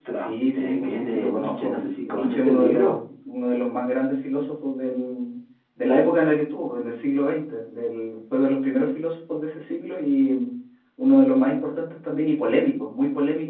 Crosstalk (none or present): present